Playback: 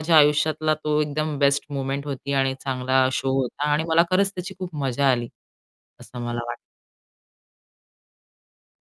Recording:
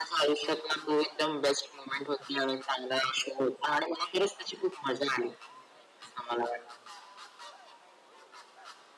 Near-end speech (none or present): none